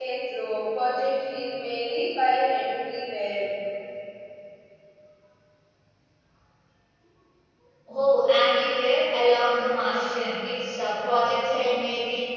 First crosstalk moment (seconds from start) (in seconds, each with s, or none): none